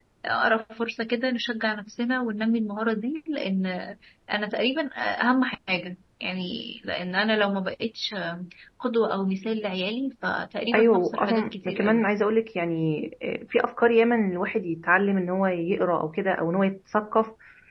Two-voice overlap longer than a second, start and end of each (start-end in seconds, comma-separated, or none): 10.7-12.0